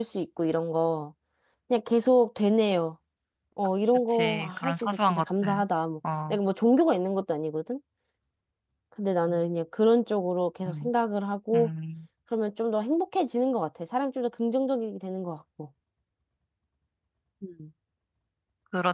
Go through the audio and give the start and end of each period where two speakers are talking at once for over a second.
4.1-5.6

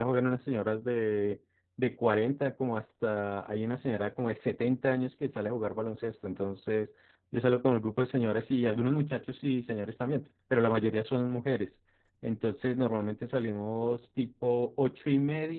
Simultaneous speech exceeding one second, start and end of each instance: none

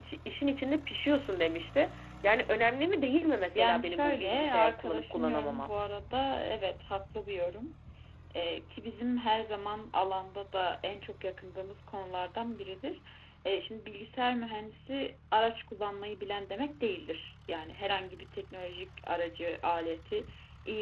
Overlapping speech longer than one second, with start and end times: 3.5-5.7

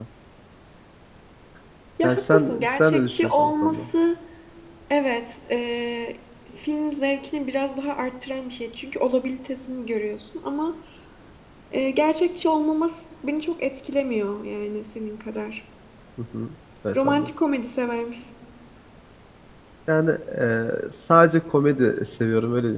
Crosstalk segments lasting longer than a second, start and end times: 2.0-3.9

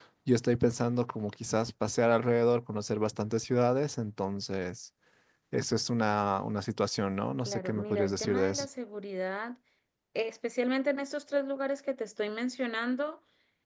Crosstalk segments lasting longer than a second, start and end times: 7.5-8.7

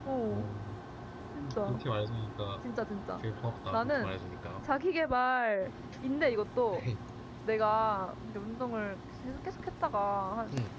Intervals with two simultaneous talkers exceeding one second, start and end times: none

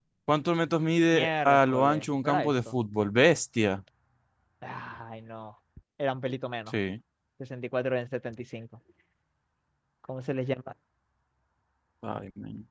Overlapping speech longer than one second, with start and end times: 1.1-2.5

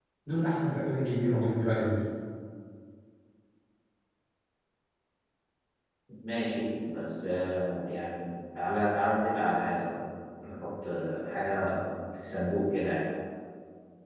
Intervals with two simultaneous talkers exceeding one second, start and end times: none

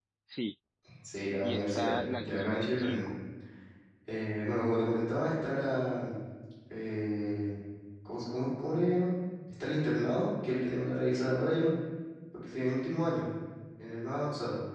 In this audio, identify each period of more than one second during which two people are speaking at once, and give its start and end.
1.4-3.1

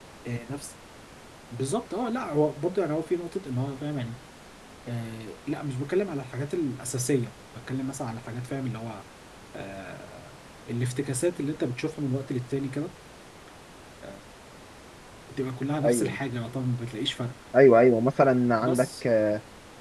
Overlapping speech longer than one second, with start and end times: none

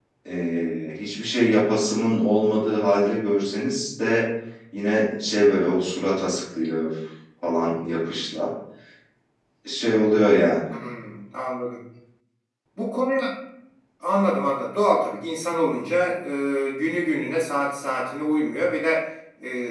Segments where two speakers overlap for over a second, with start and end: none

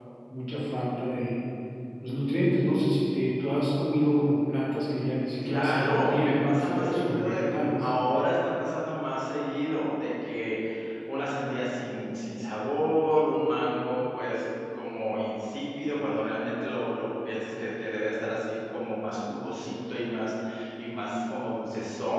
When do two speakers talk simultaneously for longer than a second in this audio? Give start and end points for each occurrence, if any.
5.4-7.9

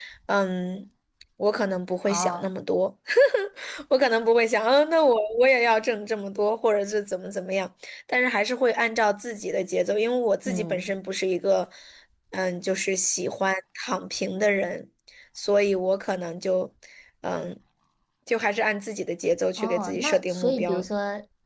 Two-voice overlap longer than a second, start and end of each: 19.6-20.8

